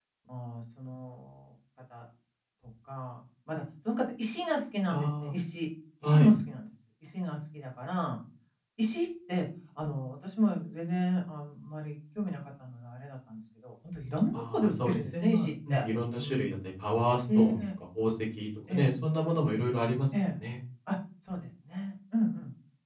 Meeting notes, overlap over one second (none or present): present